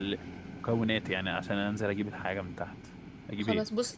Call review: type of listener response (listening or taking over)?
taking over